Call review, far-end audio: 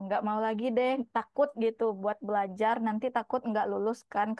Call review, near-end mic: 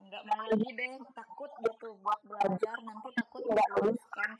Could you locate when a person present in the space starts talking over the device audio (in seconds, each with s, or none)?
none